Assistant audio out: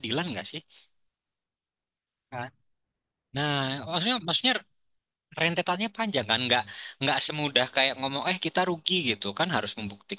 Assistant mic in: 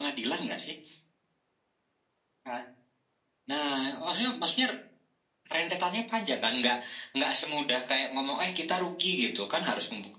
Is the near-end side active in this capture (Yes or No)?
No